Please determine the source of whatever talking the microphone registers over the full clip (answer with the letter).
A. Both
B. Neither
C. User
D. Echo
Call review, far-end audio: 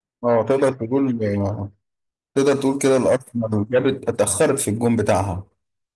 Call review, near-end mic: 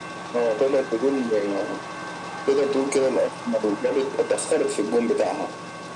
D